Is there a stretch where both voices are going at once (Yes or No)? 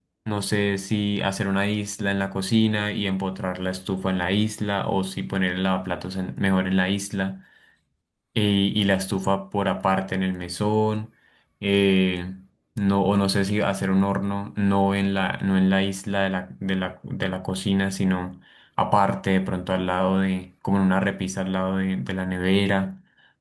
No